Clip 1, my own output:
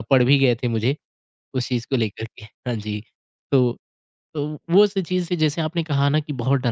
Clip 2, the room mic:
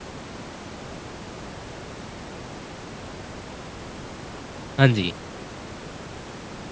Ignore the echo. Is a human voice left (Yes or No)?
Yes